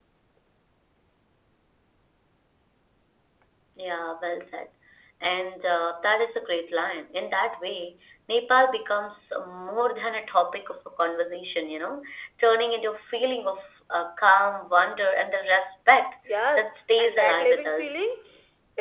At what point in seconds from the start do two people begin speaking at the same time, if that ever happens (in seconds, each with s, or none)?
16.6 s